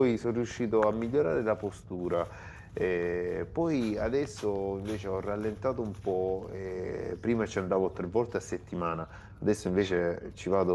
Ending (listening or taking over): listening